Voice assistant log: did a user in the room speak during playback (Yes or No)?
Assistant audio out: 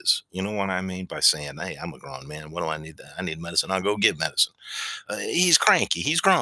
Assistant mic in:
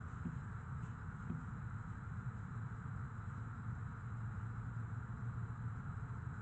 No